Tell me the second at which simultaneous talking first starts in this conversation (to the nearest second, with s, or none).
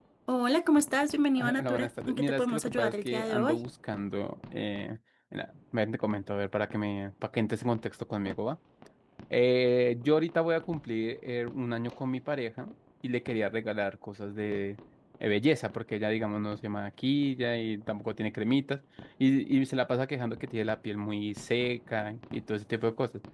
1 s